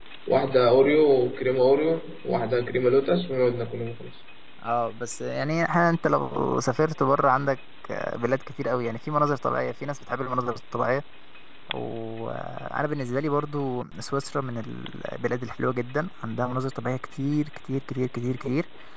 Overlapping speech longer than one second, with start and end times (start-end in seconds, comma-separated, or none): none